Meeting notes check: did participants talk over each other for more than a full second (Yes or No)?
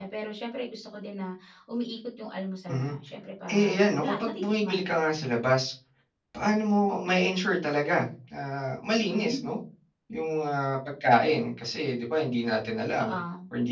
Yes